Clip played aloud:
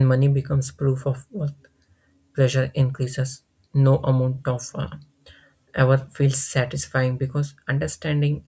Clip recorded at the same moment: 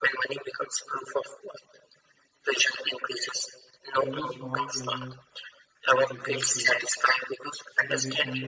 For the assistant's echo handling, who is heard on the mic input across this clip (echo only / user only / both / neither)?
both